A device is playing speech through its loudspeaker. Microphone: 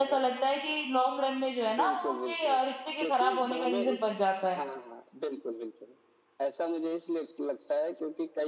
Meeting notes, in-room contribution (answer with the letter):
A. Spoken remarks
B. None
A